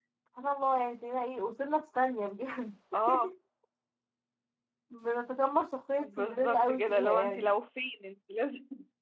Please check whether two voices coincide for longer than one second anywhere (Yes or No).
Yes